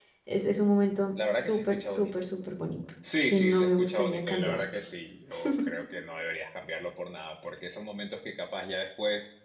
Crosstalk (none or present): present